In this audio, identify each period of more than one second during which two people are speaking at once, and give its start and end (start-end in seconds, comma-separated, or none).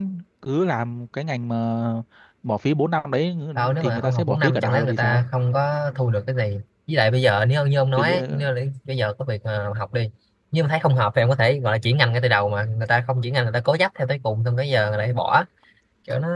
3.8-5.2